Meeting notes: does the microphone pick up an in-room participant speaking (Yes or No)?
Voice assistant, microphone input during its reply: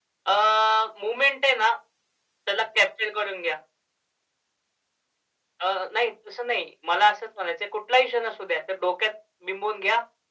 No